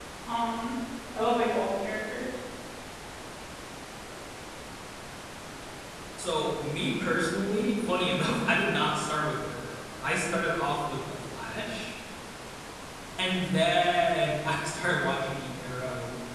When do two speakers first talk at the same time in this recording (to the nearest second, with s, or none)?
none